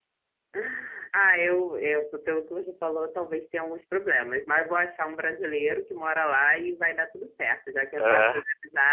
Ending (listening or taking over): listening